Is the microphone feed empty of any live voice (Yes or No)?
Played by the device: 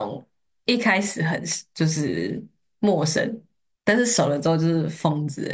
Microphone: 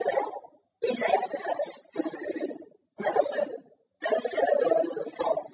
Yes